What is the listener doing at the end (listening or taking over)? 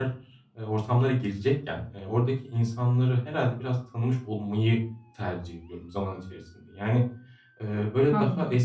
listening